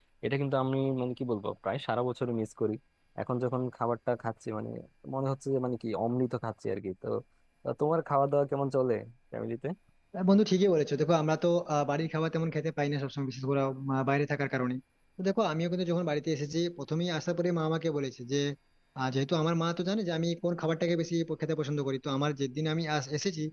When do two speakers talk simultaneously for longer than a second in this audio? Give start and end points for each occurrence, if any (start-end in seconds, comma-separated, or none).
none